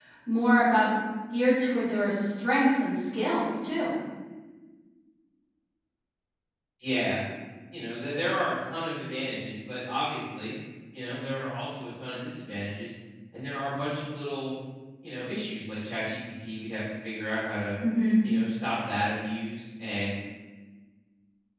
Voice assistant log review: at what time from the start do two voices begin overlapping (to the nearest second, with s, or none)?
none